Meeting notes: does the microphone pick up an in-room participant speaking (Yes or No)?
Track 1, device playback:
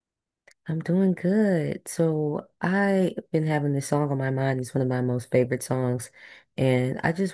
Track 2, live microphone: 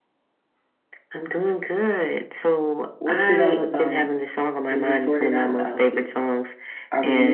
Yes